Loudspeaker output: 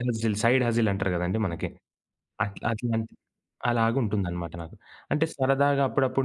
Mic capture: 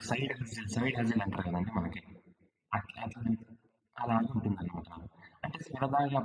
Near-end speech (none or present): none